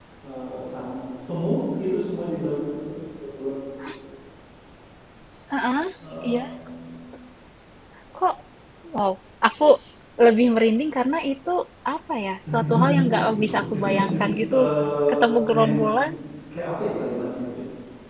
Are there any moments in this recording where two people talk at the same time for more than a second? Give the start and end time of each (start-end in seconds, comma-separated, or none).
12.5-14.6